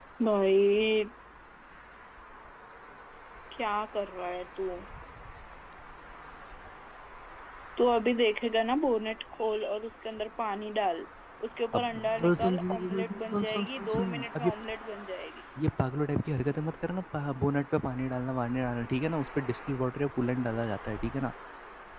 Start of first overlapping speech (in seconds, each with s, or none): 11.8 s